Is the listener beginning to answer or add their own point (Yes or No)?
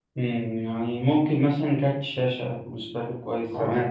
Yes